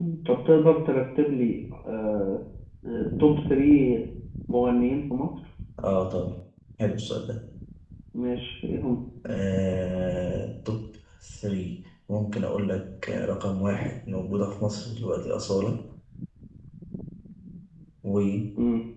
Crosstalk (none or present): none